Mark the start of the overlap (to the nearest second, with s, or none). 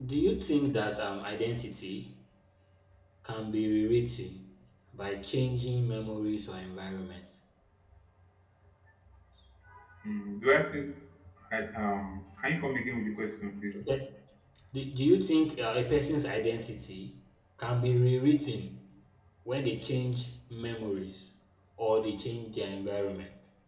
none